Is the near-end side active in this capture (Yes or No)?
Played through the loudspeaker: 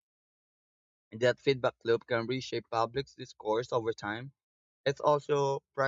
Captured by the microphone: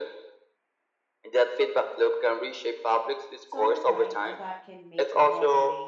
Yes